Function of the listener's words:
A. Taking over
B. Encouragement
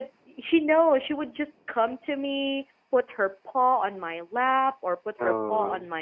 B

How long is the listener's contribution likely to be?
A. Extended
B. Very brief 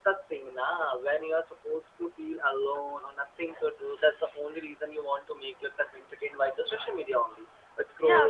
A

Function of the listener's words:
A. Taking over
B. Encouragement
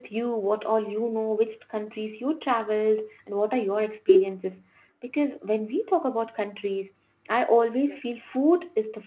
B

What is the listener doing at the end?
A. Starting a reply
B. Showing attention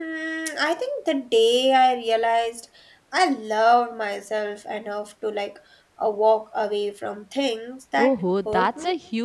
A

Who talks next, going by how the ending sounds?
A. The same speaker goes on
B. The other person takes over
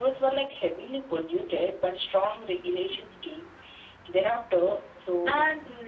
A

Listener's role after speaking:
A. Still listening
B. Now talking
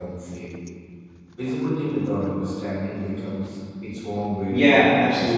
B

